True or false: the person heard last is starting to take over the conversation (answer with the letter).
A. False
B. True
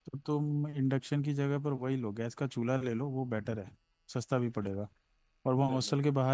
A